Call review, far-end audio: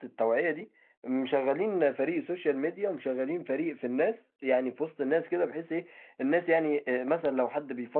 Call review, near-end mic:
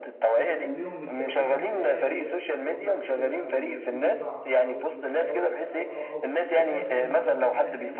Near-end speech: present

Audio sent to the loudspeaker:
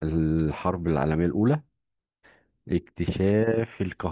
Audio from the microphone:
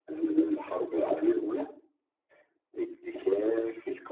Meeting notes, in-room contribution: none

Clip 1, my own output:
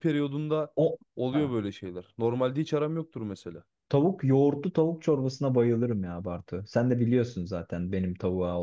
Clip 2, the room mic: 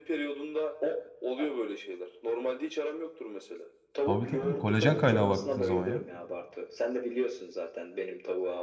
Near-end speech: present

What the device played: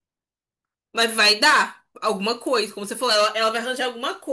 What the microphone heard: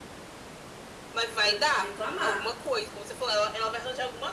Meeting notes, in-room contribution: present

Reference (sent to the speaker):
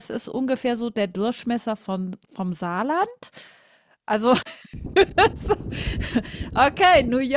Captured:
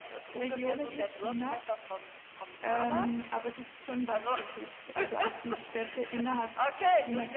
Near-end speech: present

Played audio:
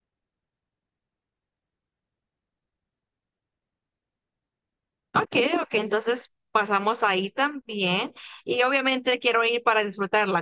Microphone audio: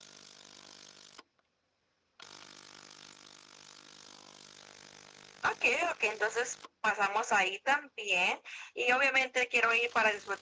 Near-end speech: none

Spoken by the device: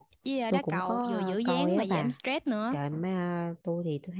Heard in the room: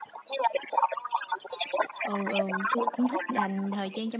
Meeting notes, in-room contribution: present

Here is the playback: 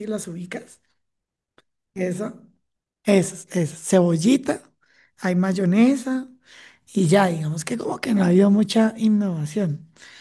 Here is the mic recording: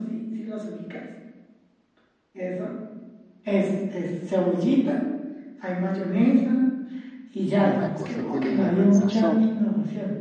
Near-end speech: present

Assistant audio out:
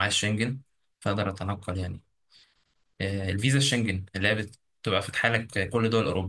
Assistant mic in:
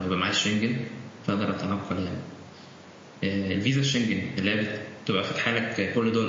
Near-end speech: none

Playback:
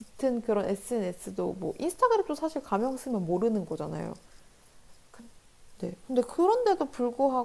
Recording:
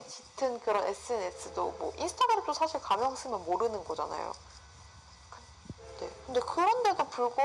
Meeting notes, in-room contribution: none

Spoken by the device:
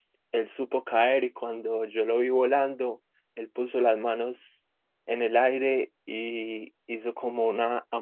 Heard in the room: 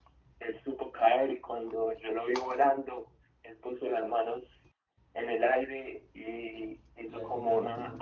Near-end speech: present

